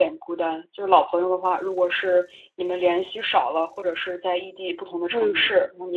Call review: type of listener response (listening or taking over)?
listening